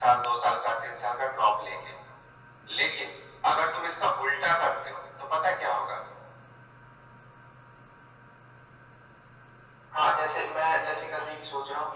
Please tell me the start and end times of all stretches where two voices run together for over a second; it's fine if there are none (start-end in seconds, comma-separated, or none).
none